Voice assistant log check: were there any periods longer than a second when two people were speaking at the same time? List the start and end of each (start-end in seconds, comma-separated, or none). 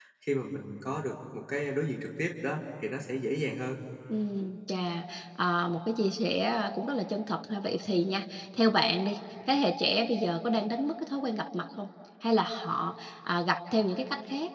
none